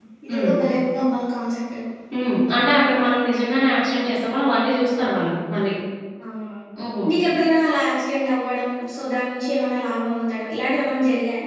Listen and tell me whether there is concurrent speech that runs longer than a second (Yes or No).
No